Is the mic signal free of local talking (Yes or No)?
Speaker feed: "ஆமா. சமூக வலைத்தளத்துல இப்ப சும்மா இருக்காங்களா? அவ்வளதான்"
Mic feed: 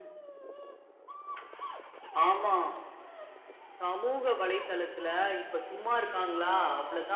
Yes